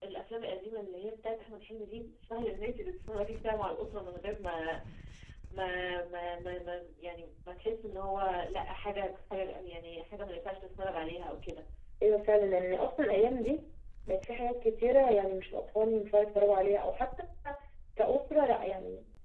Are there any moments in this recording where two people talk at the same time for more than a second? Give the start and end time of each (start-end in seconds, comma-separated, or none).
none